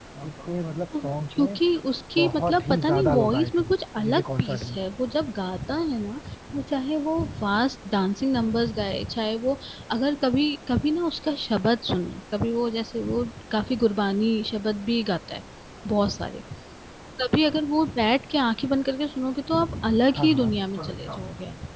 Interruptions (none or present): present